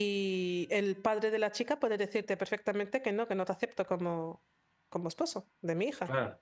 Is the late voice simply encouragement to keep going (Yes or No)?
No